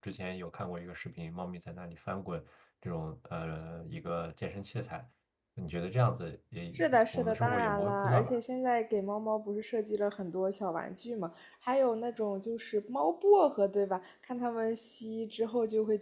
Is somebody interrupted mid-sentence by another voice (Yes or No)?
Yes